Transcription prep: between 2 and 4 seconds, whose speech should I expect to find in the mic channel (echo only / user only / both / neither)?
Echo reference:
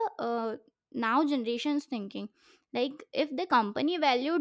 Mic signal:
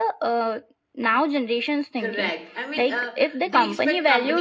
both